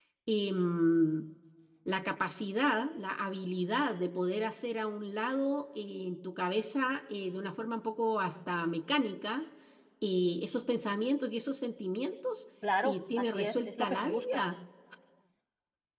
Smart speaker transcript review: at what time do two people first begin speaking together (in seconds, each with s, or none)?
12.6 s